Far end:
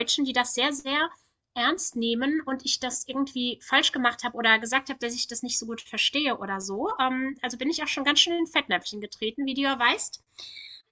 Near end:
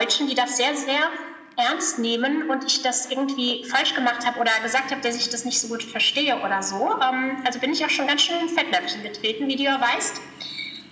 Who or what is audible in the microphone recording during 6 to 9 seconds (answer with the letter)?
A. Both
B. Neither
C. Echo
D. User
C